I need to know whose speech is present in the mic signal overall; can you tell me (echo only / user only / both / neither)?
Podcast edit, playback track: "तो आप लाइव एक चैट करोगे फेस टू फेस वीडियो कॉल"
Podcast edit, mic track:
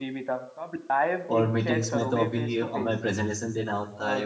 both